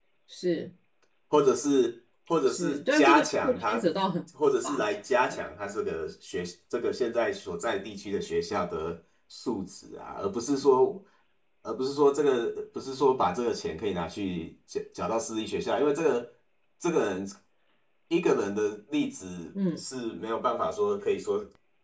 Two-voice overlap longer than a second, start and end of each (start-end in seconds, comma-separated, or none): 2.5-3.8